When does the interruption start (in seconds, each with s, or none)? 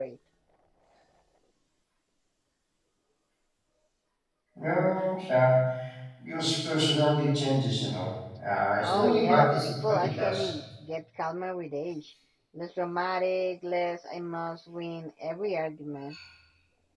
8.8 s